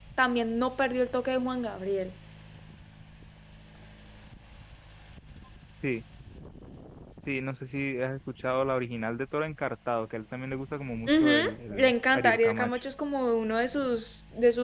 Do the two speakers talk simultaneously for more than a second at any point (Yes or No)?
Yes